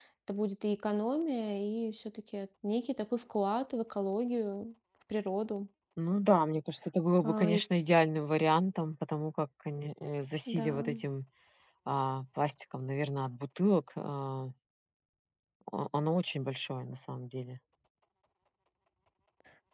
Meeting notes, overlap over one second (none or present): none